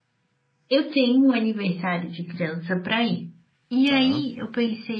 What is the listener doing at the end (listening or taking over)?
listening